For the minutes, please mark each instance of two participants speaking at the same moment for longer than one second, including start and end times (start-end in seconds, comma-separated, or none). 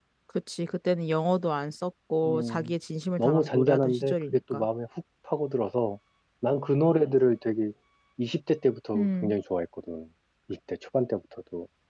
3.2-4.7